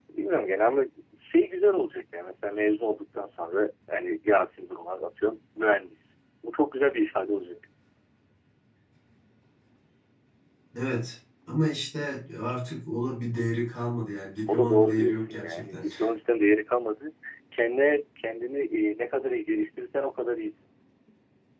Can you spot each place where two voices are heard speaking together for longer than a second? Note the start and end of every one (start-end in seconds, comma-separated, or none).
14.5-15.8